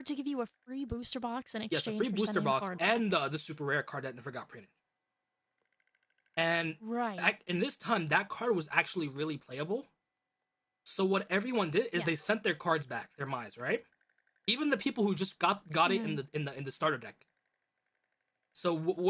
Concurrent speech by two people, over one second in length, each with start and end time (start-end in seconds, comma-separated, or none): 1.7-3.0